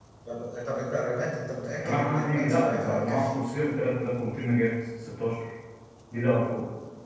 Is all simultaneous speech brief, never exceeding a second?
No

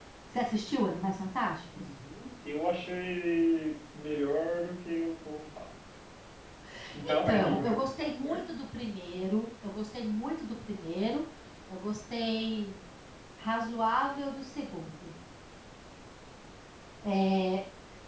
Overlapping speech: Yes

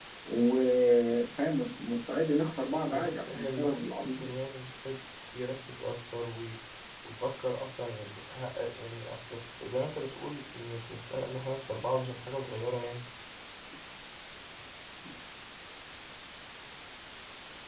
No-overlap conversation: No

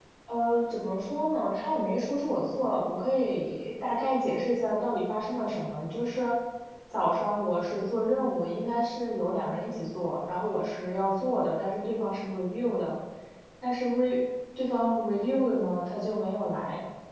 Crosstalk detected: No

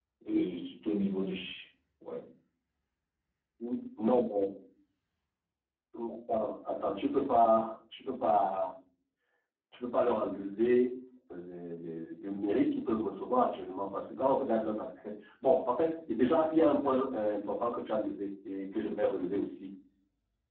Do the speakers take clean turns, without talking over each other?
Yes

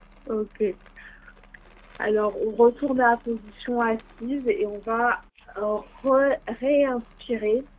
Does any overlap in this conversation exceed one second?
No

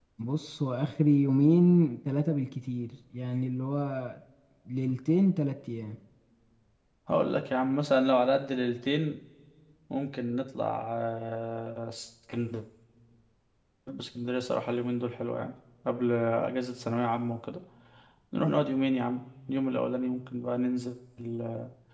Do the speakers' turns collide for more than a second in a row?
No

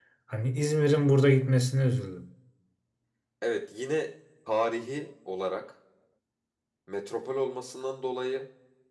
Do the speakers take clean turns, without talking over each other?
Yes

